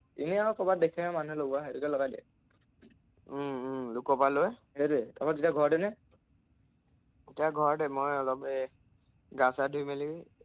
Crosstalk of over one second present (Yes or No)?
No